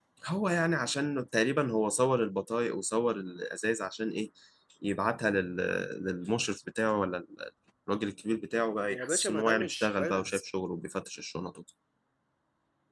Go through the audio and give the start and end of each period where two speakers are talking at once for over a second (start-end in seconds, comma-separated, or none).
8.9-10.4